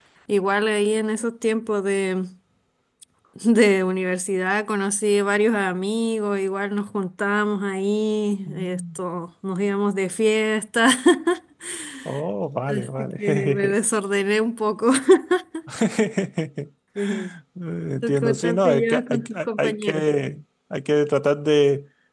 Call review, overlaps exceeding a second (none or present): present